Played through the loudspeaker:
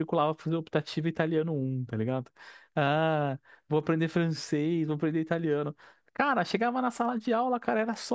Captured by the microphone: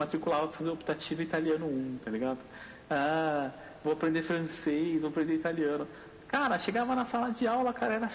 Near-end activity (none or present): none